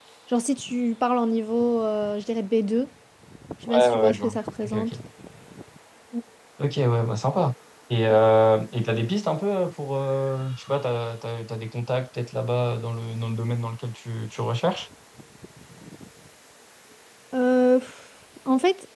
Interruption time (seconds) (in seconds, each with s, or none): 3.7 s